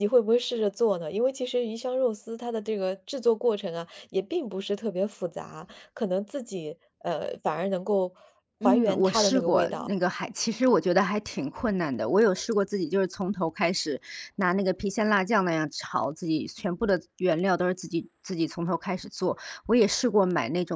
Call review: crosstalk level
present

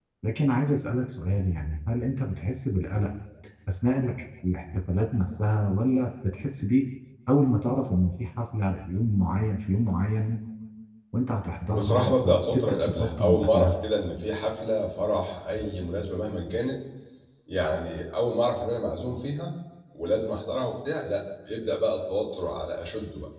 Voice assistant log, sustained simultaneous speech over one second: present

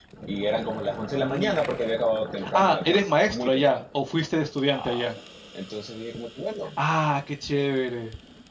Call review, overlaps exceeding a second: present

